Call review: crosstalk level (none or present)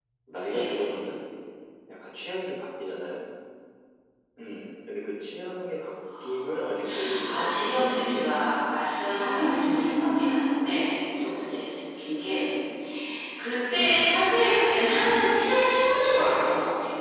present